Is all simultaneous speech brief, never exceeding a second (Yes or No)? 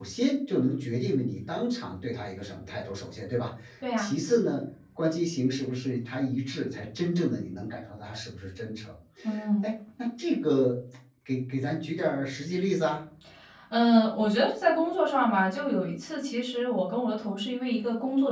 Yes